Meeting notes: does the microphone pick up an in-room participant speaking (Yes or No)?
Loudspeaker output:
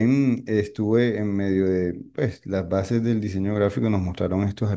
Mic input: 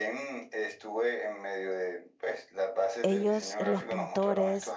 Yes